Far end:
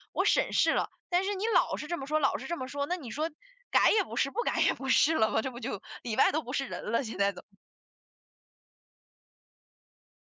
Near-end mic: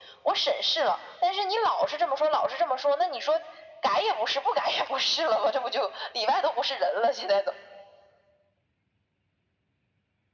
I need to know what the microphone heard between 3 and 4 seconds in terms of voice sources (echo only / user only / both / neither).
echo only